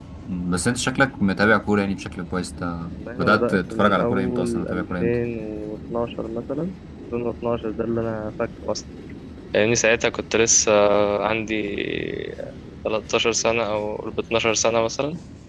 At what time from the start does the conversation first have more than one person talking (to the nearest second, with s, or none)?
3 s